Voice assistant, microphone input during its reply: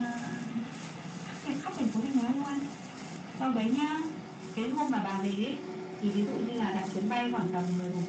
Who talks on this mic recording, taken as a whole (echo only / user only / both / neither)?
echo only